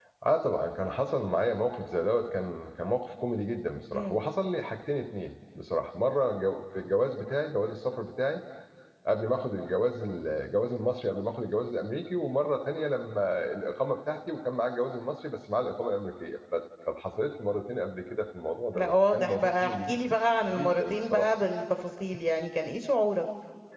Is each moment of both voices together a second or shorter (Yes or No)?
No